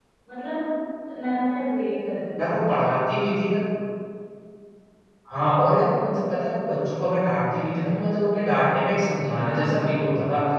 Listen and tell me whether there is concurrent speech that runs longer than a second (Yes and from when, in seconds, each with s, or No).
No